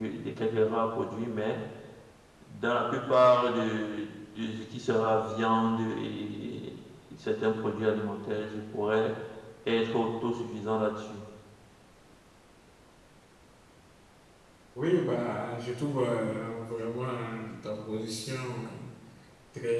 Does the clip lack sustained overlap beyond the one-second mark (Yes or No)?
Yes